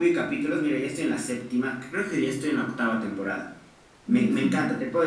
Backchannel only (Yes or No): Yes